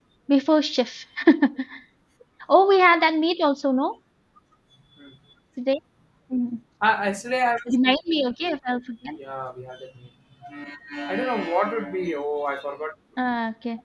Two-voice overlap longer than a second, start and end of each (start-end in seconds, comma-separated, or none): none